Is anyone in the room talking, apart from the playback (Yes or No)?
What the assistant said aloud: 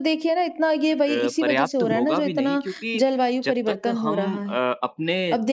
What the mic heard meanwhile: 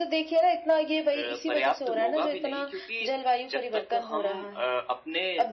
No